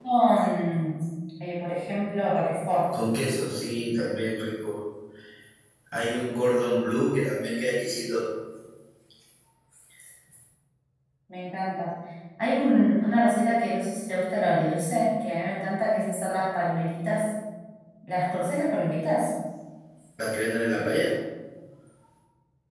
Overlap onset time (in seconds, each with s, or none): none